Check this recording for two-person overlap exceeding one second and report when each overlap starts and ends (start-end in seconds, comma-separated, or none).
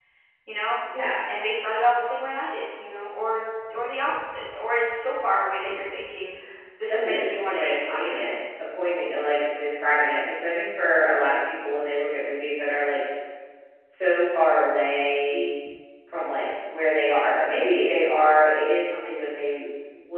6.9-8.2